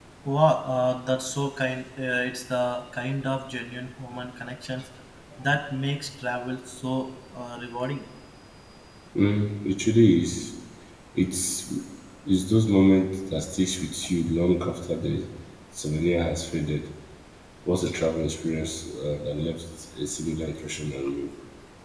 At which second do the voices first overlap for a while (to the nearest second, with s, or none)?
none